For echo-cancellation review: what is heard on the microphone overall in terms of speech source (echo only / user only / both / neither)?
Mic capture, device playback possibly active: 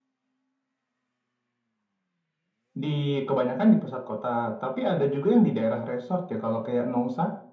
echo only